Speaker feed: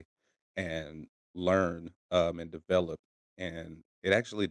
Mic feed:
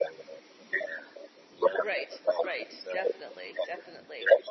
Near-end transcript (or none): Right, right, definitely, definitely,